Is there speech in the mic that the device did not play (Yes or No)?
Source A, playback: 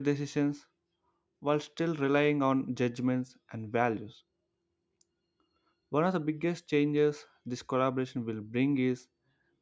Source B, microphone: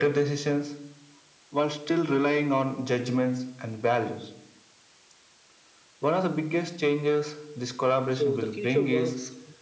Yes